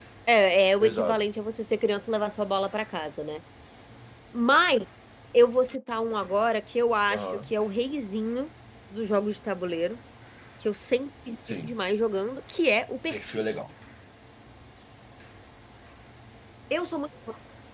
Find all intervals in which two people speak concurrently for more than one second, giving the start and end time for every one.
none

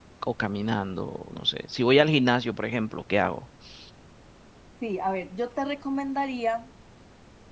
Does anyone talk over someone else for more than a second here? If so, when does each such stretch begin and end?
none

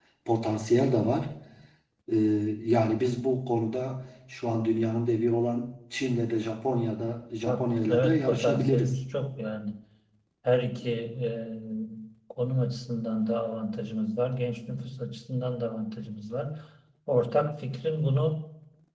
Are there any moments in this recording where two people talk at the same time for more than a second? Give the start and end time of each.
7.5-9.0

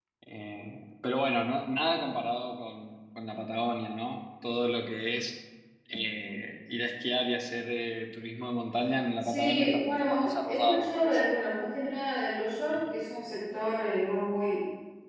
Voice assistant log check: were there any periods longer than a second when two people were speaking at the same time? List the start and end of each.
9.2-11.2

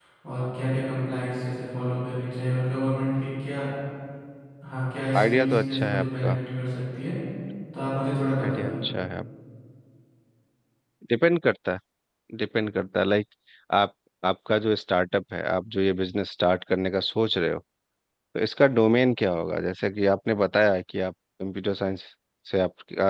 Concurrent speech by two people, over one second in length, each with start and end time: 5.2-6.4

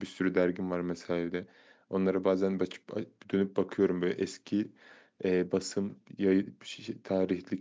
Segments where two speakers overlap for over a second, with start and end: none

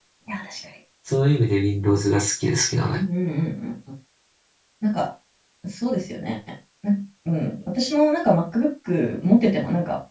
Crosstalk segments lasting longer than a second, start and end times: none

